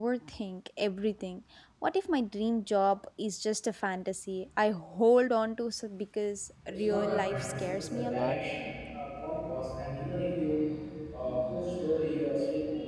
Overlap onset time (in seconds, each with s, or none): 6.6 s